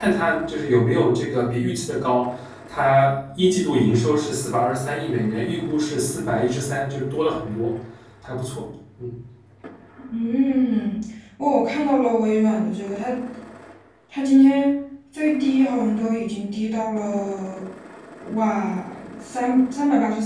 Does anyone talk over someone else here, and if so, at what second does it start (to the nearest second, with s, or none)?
none